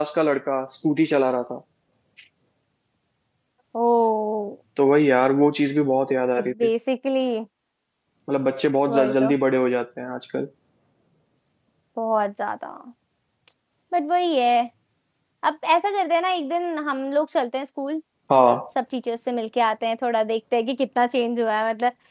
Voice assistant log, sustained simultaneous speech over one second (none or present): none